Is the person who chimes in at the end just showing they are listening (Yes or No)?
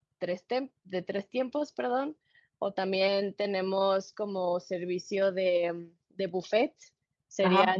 Yes